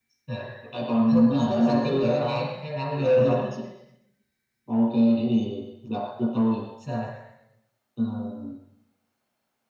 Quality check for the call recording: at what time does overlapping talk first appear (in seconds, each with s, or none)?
1.1 s